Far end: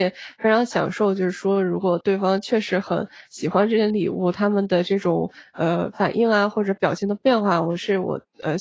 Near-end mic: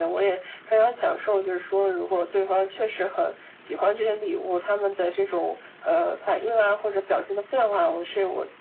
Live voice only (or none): none